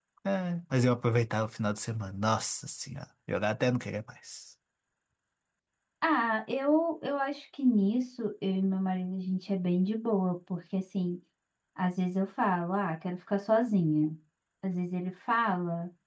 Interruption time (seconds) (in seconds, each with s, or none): none